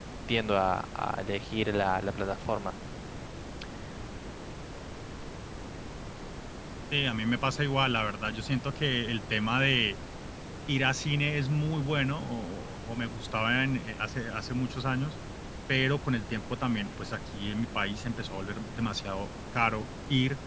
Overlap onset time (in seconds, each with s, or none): none